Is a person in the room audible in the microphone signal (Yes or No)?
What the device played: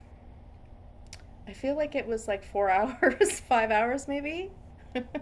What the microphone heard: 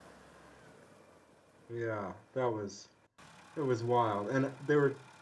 Yes